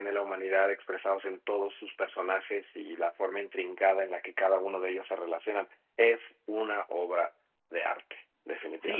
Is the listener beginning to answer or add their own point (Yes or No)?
Yes